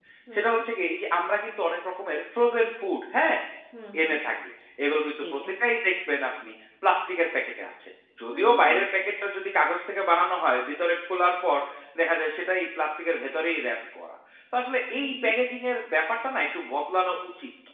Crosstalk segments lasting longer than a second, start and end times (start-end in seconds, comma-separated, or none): none